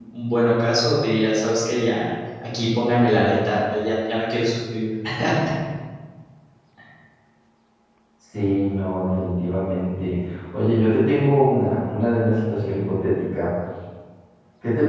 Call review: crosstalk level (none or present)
none